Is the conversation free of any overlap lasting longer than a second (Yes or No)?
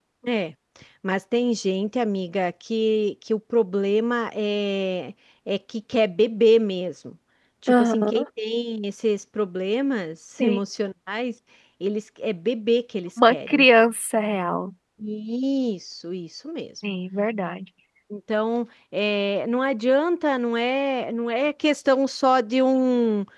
Yes